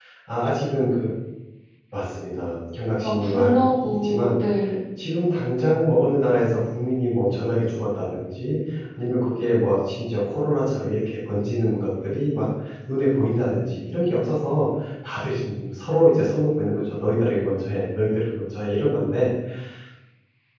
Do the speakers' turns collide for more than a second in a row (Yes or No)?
Yes